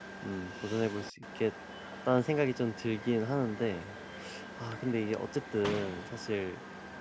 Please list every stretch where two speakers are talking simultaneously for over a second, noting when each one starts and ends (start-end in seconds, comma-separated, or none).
none